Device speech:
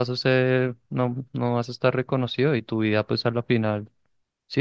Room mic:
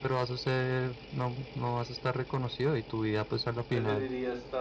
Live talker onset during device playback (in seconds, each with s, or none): 3.7 s